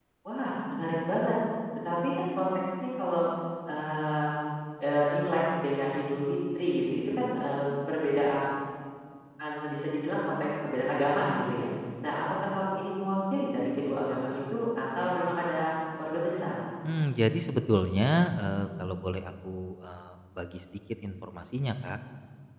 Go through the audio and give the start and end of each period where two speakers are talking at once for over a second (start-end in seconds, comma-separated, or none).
none